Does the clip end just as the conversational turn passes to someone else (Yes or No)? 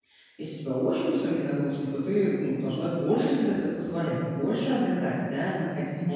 No